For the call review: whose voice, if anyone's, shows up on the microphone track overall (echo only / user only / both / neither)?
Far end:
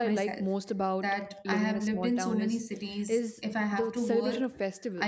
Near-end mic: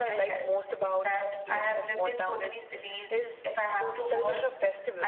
echo only